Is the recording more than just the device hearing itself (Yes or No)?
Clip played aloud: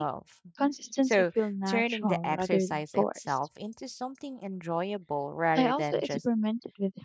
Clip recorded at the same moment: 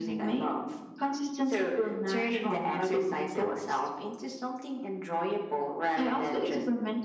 No